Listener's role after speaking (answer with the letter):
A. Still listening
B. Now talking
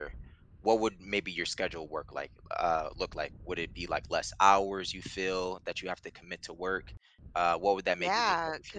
B